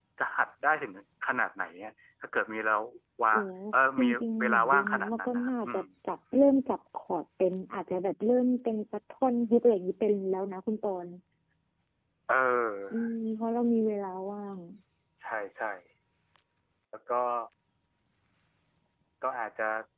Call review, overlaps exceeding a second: present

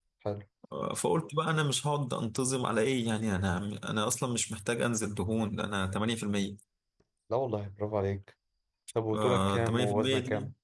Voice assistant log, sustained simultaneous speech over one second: present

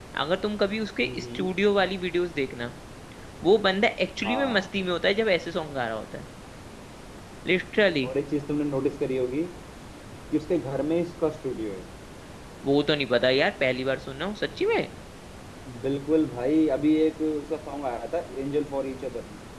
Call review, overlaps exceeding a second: none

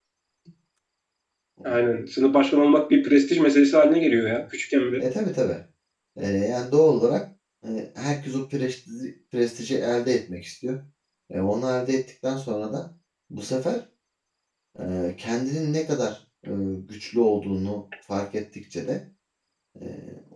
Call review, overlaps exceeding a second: none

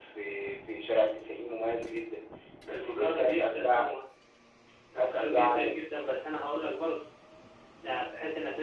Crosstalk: present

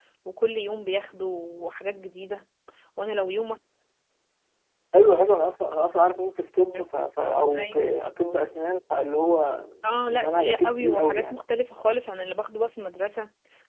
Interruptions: present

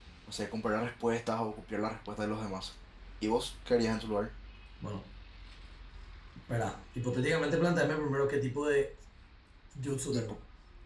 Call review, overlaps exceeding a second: none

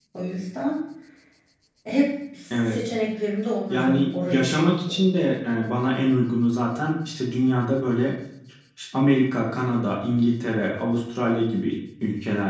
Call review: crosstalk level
present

